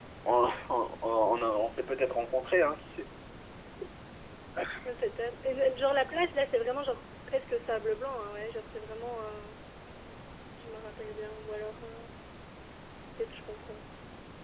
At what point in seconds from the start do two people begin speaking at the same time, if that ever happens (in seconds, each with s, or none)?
none